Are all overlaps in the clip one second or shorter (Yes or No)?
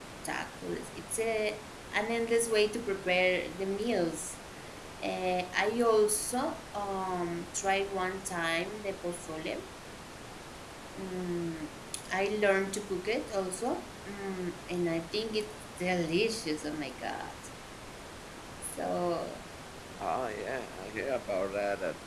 Yes